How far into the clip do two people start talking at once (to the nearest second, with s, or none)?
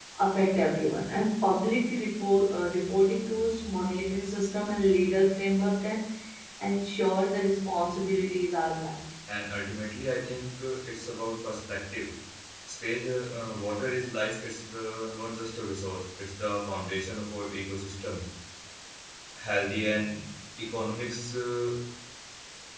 none